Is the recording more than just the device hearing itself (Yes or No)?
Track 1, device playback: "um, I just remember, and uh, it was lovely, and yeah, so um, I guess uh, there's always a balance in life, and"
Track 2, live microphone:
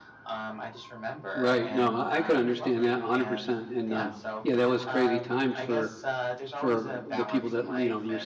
Yes